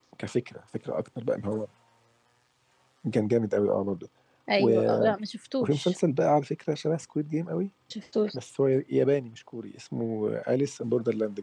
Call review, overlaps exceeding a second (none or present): none